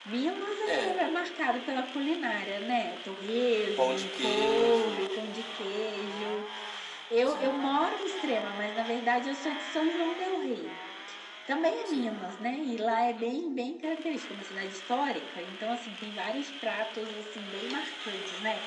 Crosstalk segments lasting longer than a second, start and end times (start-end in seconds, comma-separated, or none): 3.8-5.1